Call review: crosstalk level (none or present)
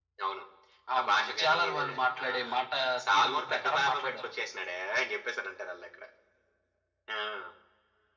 present